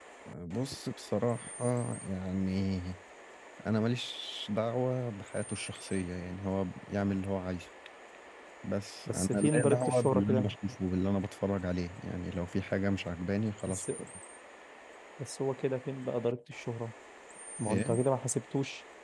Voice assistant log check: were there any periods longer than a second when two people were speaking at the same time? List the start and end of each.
9.1-10.5

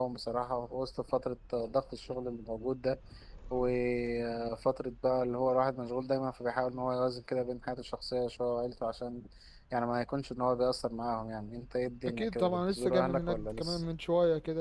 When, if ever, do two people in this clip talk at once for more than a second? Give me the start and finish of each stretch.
12.1-13.8

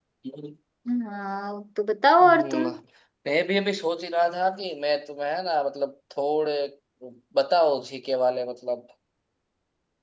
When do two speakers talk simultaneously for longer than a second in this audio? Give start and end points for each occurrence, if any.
none

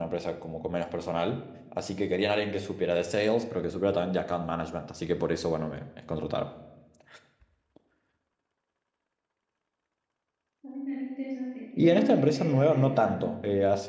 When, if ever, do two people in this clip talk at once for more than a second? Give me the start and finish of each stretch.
11.8-13.3

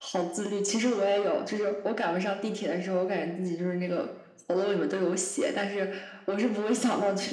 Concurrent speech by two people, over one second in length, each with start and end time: none

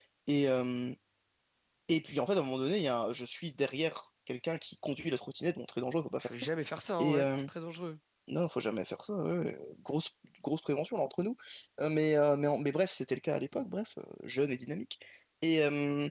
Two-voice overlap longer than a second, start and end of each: none

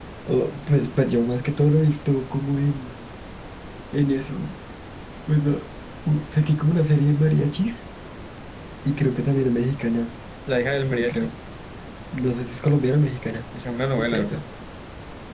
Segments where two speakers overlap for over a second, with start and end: none

